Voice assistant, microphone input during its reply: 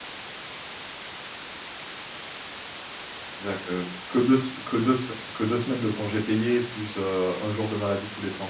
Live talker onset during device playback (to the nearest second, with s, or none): 3 s